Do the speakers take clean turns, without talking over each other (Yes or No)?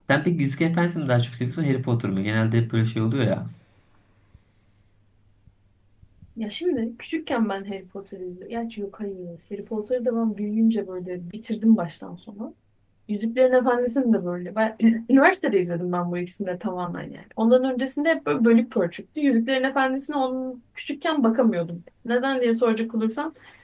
Yes